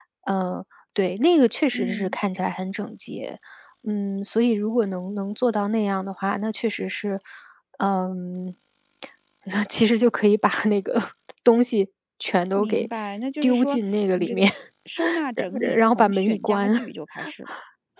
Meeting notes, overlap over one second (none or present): present